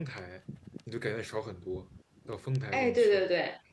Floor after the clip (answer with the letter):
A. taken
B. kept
A